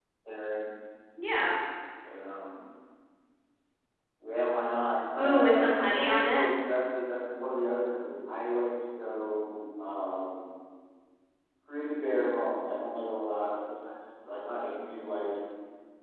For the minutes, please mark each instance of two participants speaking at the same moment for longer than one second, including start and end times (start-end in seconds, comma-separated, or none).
5.2-6.4